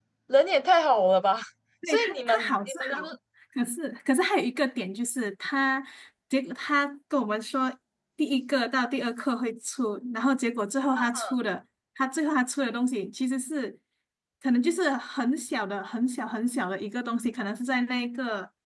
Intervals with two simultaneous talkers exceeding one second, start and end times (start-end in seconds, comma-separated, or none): 1.9-3.2